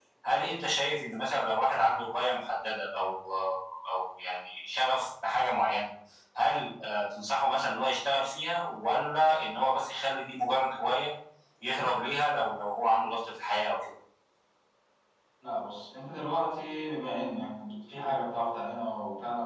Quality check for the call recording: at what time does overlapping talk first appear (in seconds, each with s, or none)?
none